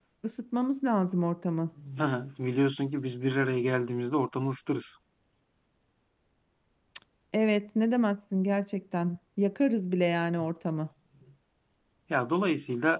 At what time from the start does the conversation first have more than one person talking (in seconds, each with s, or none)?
none